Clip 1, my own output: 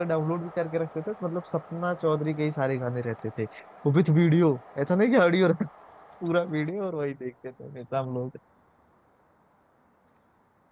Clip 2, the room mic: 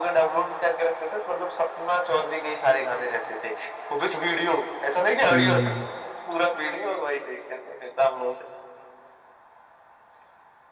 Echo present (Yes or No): Yes